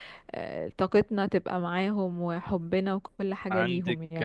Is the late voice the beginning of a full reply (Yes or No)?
Yes